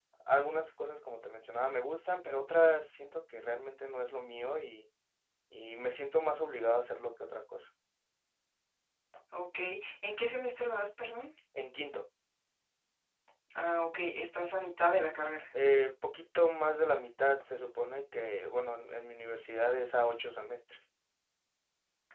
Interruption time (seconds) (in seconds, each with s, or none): none